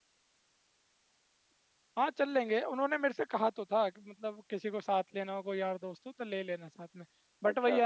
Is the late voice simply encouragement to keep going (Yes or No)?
Yes